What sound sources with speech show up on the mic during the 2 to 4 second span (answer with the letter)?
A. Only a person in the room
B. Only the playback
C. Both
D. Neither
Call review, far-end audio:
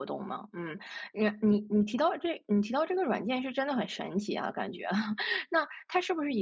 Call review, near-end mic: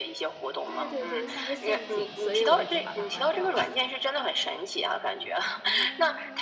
C